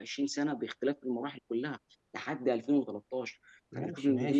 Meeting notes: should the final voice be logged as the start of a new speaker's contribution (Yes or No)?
Yes